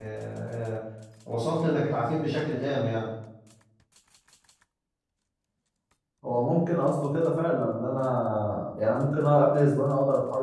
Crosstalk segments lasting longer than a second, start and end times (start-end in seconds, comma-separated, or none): none